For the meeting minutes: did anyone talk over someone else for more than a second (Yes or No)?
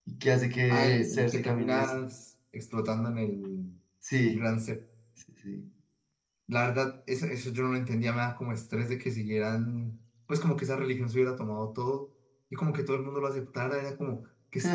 Yes